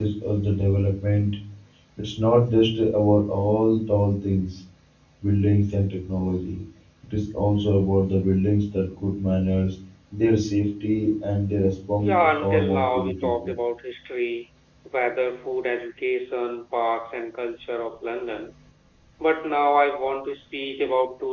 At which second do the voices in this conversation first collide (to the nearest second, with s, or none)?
12 s